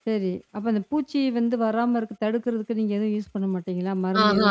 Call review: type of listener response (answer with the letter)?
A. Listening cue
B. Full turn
B